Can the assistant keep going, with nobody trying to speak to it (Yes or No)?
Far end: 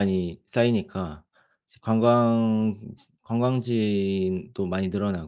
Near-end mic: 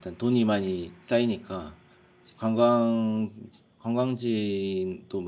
Yes